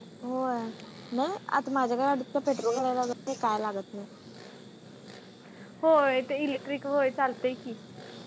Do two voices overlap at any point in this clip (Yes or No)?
No